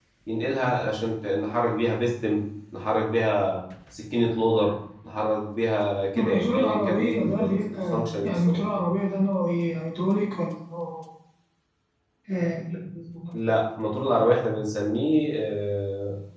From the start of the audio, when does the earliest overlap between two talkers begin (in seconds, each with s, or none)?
6.2 s